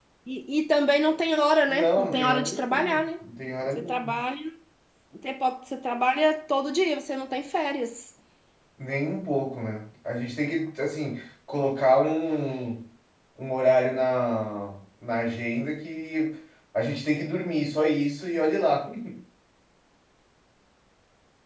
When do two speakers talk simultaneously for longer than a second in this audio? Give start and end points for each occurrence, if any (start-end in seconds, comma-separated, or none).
1.7-3.0